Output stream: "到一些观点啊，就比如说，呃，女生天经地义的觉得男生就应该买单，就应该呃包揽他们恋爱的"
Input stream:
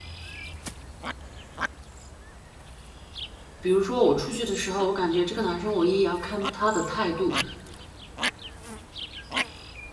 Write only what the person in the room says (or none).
比如说我出去的时候，我感觉这个男生我也要看他的态度。